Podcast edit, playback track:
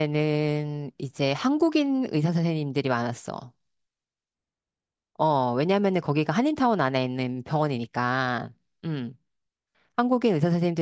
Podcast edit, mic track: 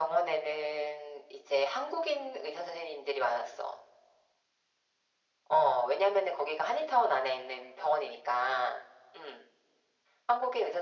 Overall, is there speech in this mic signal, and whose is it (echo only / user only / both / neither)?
echo only